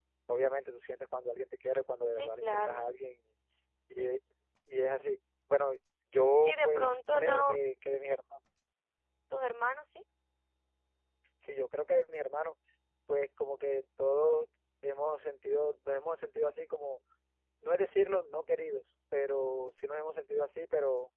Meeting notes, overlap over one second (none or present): present